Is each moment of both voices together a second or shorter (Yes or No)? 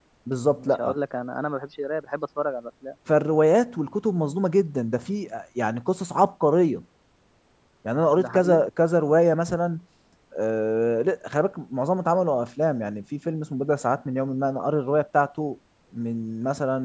Yes